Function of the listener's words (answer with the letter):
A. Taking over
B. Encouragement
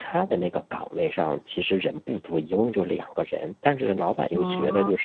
B